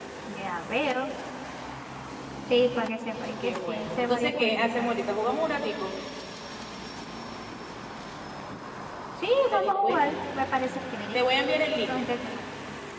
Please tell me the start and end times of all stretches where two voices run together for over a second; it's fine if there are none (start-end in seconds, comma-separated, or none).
3.4-4.9